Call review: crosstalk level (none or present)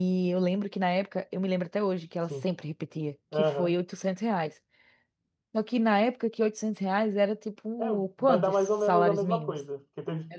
present